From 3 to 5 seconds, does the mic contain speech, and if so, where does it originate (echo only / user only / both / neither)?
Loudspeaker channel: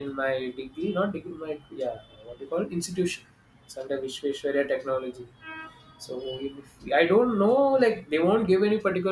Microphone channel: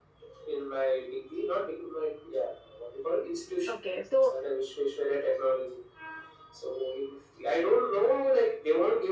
both